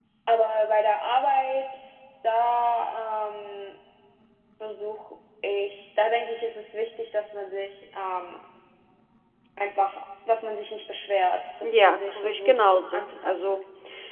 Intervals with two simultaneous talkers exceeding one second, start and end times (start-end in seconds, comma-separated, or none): 11.6-13.6